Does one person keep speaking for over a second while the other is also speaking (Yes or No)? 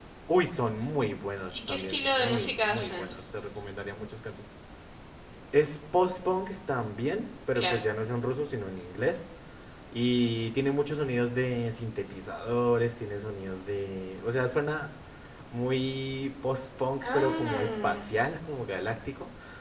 Yes